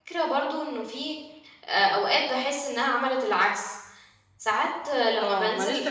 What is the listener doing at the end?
taking over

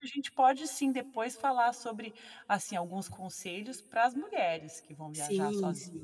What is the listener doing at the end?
taking over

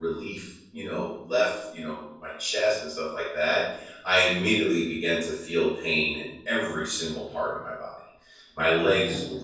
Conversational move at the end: listening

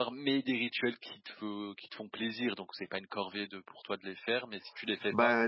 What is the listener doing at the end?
taking over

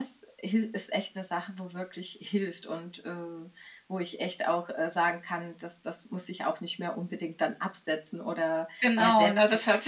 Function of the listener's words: taking over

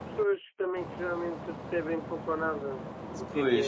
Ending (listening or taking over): listening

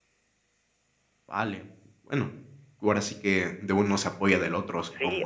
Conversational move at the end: taking over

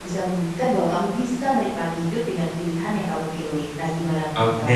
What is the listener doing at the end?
taking over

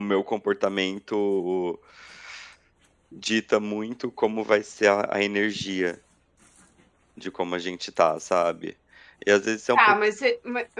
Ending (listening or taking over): taking over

